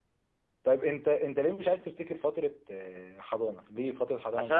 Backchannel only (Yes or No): No